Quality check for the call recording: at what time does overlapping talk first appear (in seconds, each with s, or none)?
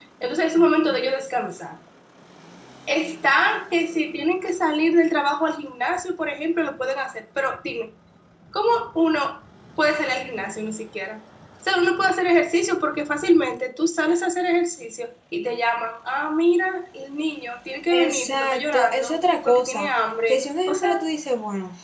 17.9 s